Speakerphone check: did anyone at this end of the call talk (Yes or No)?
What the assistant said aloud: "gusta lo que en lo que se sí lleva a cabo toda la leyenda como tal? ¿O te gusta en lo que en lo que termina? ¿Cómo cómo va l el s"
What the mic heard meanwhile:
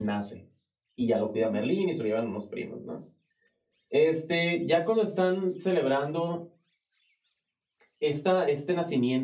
Yes